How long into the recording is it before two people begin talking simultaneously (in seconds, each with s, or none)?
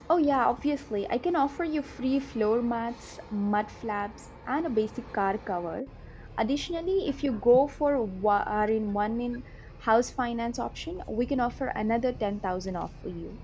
none